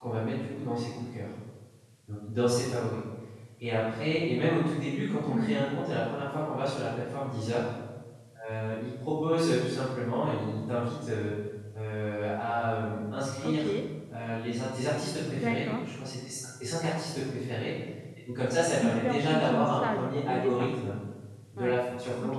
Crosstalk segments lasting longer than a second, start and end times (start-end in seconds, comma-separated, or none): 18.8-20.7